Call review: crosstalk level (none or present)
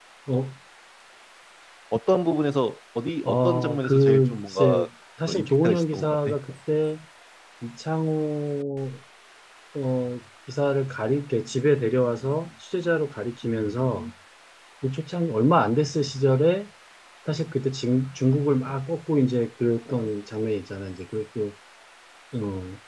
present